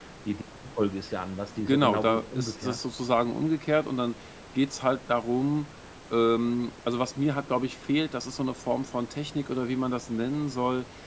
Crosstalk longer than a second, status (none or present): present